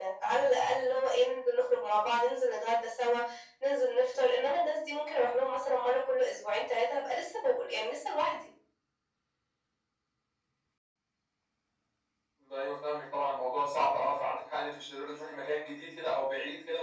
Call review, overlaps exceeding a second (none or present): none